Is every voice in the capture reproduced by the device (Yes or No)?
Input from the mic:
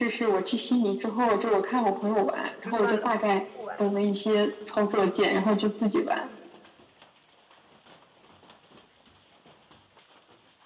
No